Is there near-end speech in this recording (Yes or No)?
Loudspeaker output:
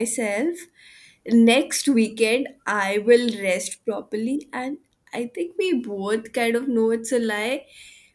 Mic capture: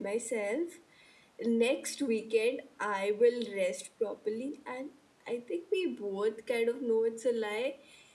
No